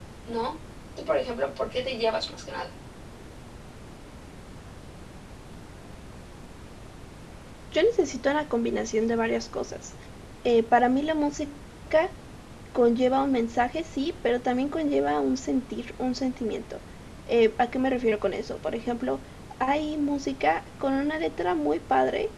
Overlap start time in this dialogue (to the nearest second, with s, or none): none